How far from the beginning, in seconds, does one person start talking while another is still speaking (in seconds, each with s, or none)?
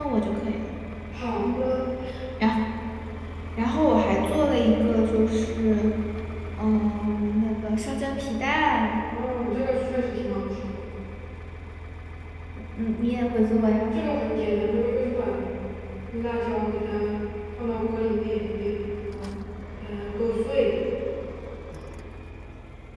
none